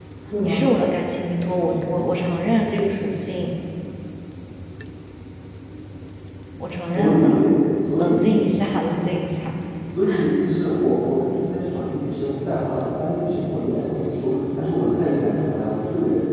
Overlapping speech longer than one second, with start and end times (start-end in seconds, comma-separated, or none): none